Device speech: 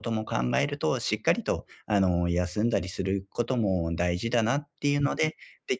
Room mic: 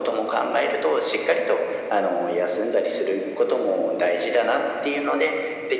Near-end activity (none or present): none